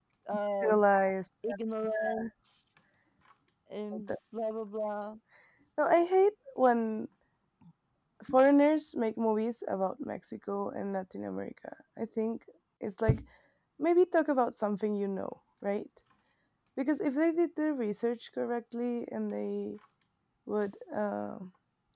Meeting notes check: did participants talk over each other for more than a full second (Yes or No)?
No